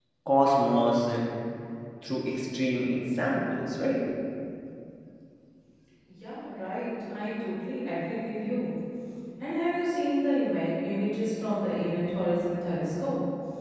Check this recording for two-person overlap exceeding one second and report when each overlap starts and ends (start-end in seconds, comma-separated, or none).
none